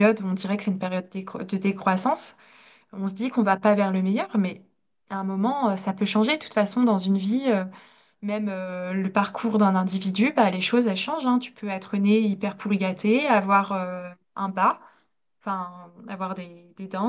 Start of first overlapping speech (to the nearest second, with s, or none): none